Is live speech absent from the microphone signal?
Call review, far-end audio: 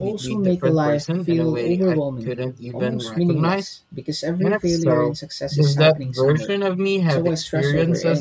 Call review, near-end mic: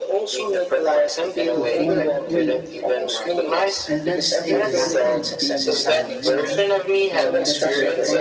No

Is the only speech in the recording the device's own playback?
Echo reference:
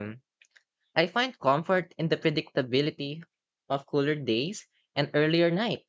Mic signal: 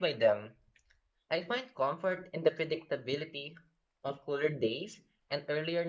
Yes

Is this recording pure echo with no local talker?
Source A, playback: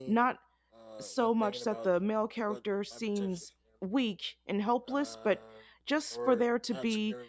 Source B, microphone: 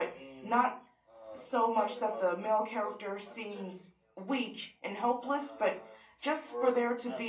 Yes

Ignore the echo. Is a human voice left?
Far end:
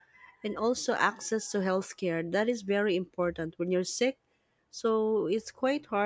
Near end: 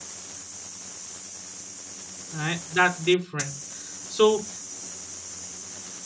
Yes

